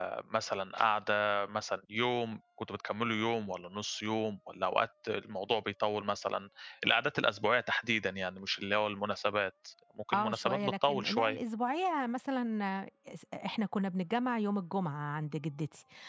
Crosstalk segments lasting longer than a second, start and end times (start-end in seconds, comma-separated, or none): 10.1-11.4